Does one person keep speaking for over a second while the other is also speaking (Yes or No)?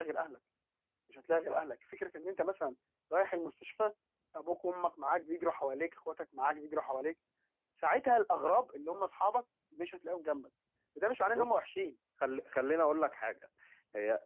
No